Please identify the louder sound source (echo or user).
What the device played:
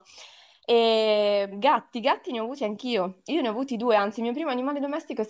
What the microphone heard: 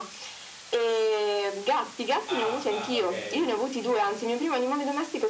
echo